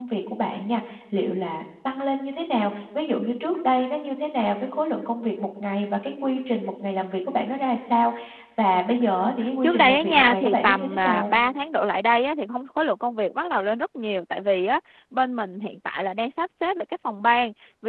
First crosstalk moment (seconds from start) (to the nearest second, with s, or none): 9 s